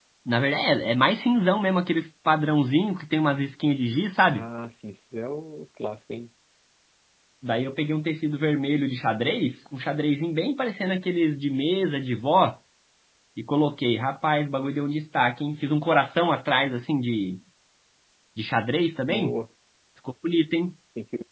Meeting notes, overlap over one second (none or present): none